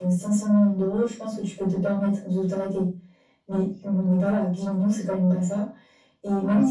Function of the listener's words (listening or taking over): taking over